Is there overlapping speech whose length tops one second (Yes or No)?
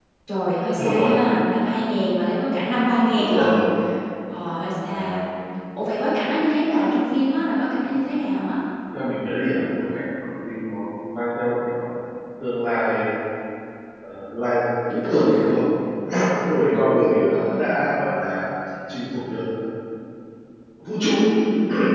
No